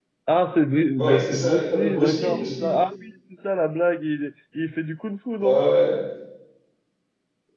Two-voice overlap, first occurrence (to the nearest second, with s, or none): 1 s